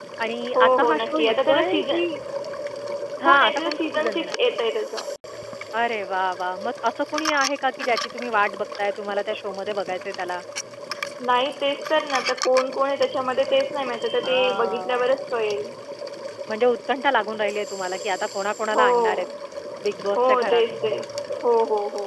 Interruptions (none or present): present